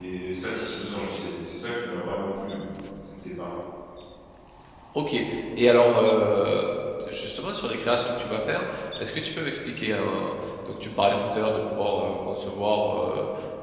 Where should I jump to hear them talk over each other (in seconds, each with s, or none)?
none